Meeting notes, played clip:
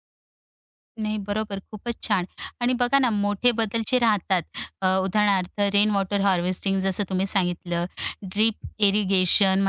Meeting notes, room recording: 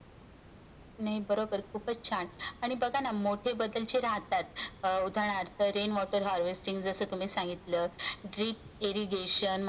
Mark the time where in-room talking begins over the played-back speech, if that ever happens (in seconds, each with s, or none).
none